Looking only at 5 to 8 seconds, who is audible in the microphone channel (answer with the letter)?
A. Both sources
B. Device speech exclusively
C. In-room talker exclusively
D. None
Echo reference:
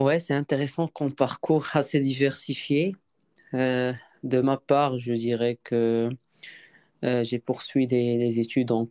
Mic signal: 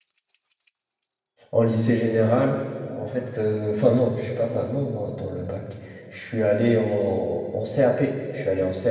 C